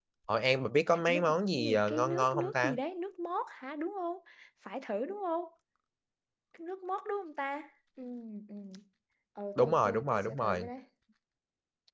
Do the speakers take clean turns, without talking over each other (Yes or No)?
No